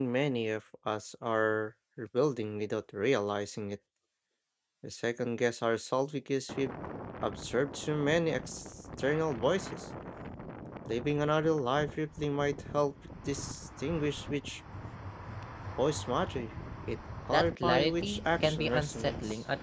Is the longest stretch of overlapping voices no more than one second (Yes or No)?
No